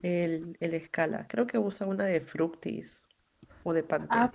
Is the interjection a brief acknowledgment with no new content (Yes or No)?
No